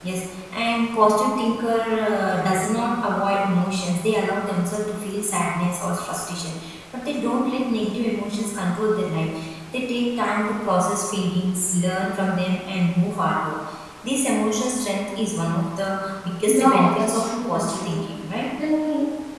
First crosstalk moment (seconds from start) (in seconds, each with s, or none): 16.5 s